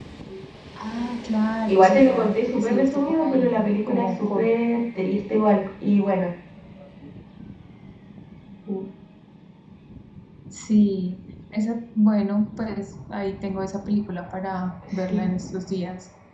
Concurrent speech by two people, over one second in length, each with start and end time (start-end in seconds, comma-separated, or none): 1.7-4.5